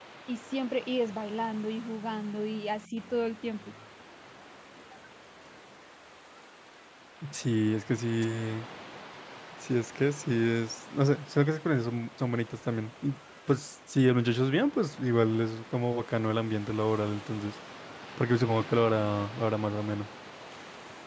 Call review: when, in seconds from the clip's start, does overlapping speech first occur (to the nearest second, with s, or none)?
none